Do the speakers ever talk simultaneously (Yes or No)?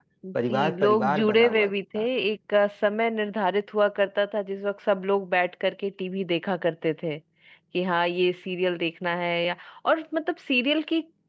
Yes